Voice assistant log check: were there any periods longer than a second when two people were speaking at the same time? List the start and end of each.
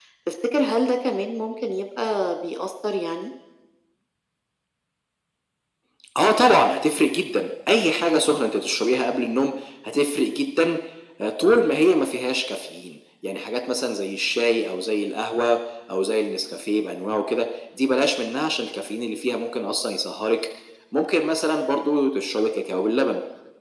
none

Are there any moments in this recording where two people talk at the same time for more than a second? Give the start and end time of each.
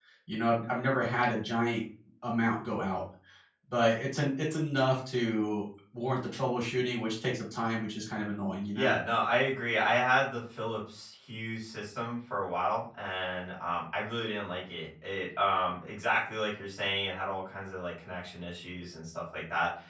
none

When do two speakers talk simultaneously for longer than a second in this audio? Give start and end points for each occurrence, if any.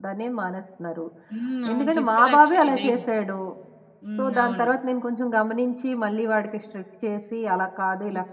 1.7-3.0

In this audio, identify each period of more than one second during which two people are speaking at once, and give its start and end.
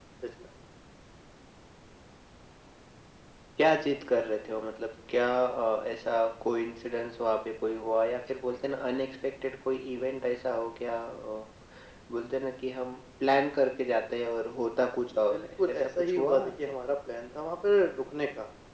15.3-16.7

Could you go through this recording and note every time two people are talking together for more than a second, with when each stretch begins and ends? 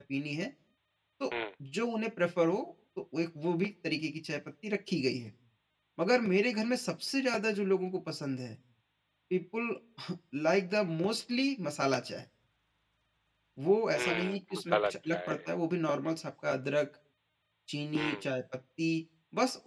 14.0-15.4

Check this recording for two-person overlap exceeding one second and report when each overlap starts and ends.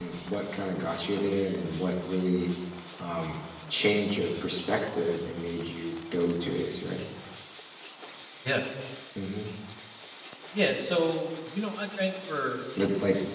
none

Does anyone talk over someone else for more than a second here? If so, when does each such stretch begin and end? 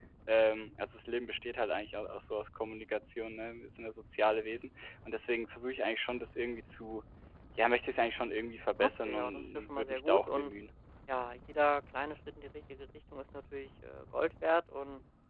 8.8-10.5

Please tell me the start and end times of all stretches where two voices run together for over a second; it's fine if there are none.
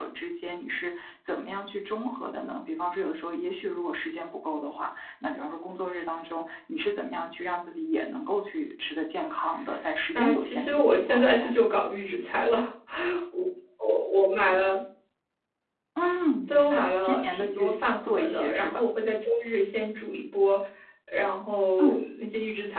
10.1-11.5, 16.5-18.8

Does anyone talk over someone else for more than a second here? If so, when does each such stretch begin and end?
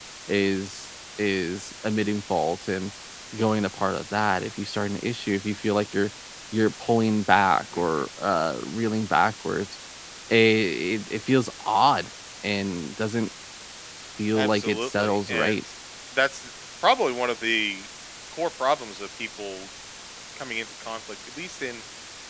14.3-15.6

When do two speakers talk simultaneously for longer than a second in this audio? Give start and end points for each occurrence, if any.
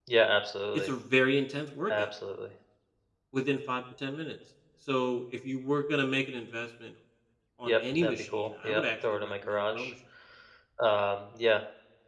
7.7-9.9

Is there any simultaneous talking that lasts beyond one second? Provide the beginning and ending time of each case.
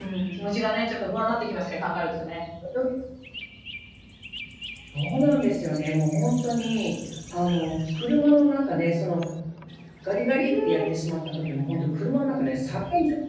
none

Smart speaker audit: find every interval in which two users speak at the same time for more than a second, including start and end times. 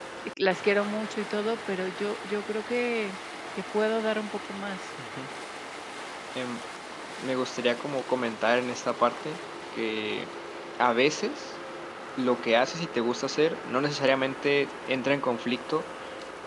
none

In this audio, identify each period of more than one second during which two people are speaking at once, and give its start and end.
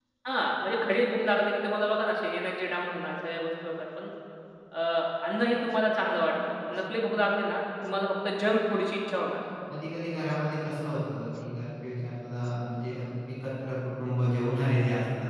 none

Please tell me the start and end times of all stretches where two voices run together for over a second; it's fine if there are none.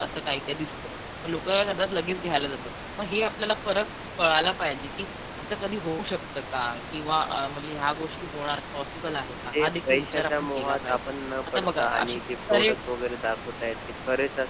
9.5-11.0, 11.5-12.7

